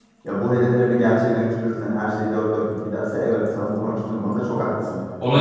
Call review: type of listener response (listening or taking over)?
taking over